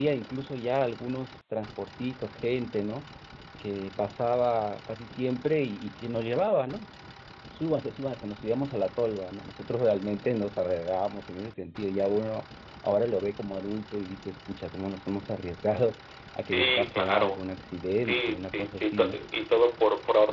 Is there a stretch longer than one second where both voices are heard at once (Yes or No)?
Yes